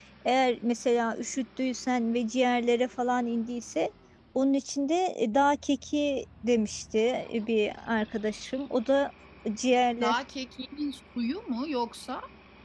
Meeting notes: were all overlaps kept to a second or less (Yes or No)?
Yes